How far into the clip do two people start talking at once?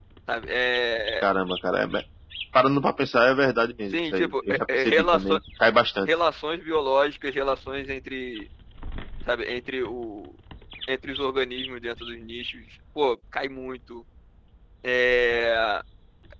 3.9 s

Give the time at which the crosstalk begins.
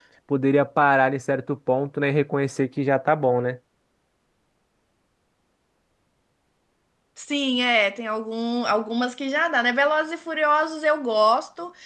none

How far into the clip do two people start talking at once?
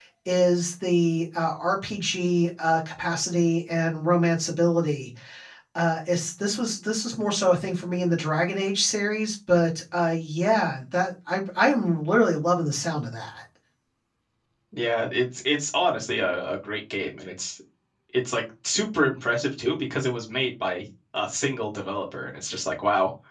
none

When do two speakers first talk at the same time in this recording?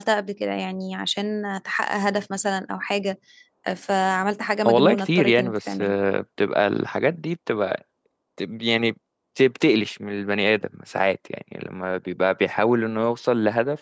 4.7 s

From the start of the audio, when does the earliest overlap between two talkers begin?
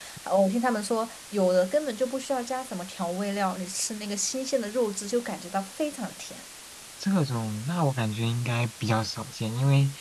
none

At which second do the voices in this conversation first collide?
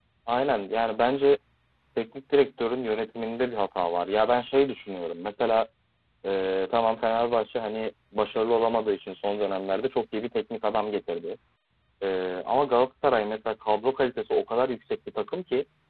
none

